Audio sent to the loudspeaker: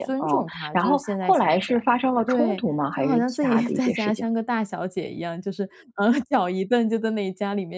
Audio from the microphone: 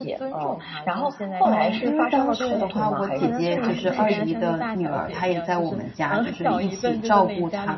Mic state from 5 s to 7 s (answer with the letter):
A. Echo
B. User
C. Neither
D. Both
D